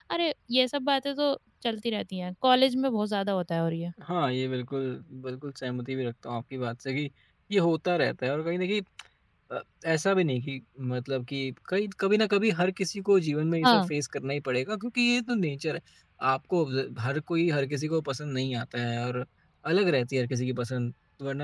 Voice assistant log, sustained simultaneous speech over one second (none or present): none